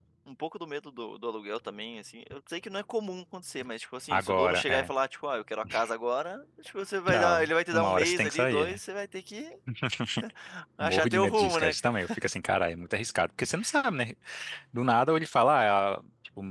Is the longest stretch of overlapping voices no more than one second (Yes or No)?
No